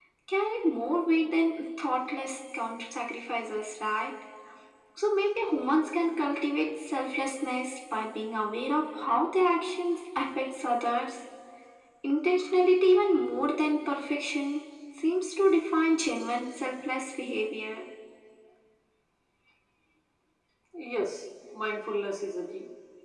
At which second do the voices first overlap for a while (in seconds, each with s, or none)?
none